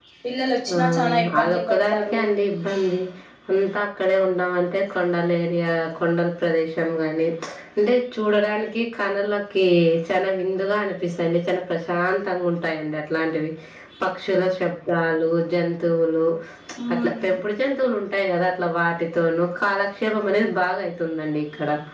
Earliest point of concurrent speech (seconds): 0.7 s

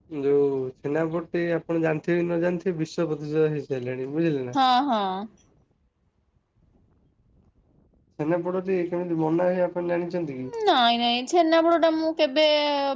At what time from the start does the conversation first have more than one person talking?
none

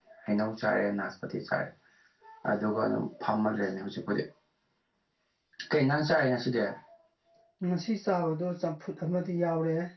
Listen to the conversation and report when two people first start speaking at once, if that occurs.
none

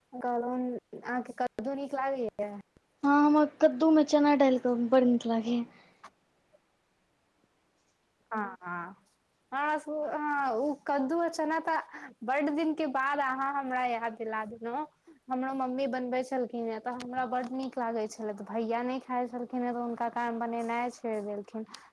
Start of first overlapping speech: none

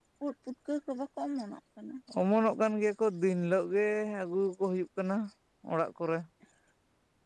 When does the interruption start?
none

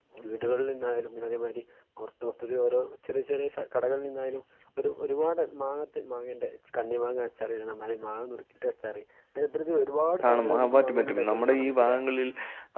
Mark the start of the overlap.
10.2 s

